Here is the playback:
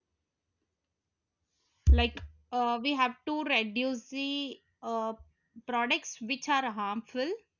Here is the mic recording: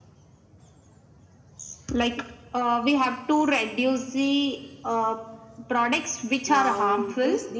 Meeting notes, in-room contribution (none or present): present